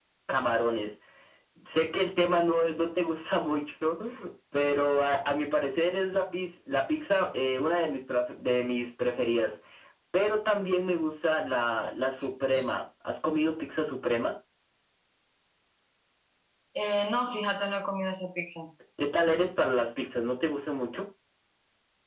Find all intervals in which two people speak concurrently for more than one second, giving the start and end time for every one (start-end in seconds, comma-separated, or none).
none